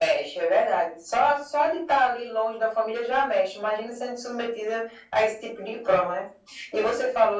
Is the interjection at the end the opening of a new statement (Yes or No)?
No